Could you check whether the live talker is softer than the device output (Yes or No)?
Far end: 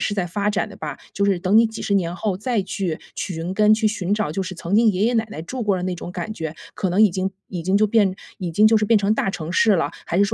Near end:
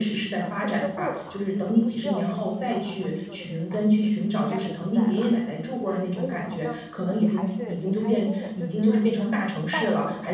Yes